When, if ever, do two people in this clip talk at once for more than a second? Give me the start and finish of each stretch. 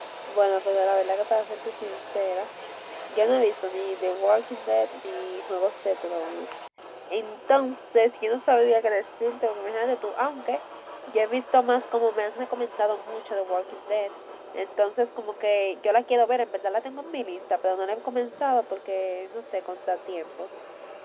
none

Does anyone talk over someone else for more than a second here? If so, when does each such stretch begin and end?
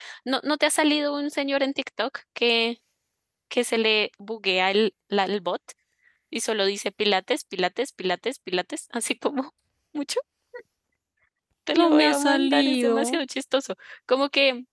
11.7-13.2

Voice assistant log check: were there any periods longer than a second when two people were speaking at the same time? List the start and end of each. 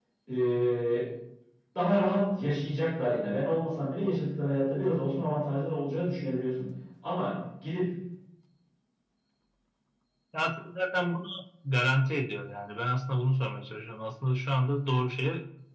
none

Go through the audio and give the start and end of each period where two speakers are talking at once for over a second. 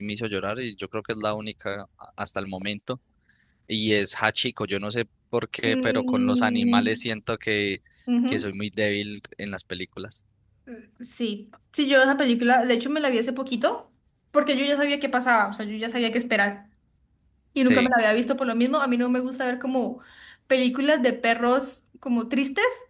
5.6-7.0

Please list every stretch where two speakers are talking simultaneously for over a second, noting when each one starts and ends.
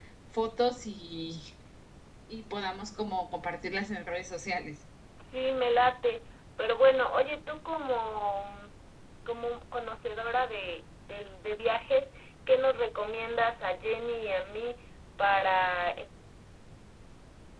none

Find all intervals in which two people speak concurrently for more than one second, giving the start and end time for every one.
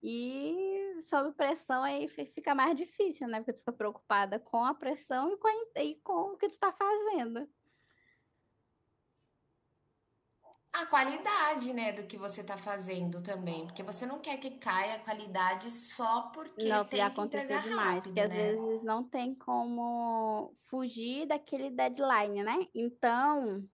16.6-18.6

